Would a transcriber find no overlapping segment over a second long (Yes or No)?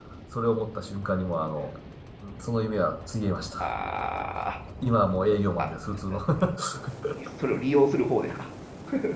Yes